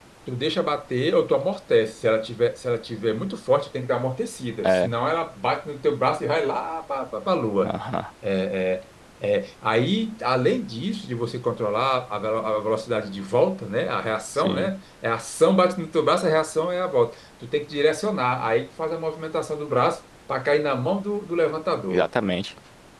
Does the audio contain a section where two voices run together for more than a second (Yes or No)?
No